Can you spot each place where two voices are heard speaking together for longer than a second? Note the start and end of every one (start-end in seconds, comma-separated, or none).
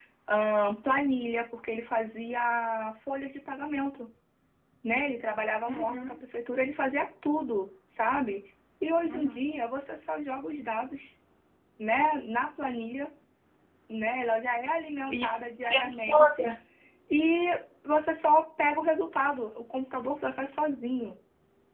15.1-16.5